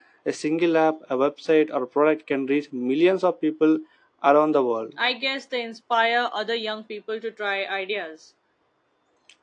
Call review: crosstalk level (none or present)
none